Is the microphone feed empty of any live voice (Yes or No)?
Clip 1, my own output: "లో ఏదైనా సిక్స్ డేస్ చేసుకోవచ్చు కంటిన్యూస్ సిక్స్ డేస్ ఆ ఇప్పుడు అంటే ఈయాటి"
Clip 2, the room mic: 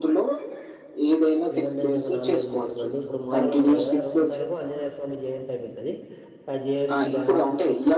No